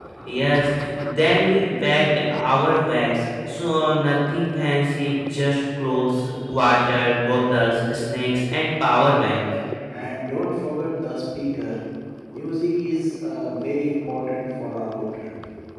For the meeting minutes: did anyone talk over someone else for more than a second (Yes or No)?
No